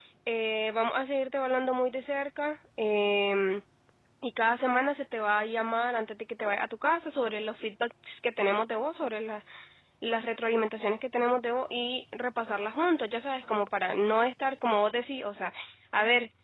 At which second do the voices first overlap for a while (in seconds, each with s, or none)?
none